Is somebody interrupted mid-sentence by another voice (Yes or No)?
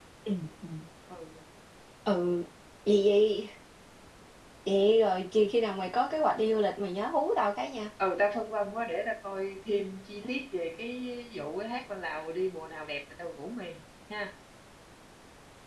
No